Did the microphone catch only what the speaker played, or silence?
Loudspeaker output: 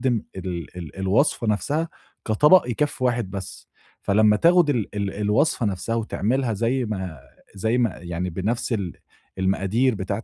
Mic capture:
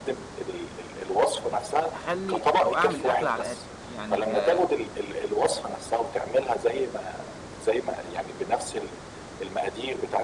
No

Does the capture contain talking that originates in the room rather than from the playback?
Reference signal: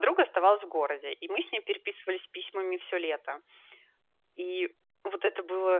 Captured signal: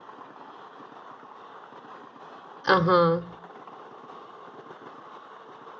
Yes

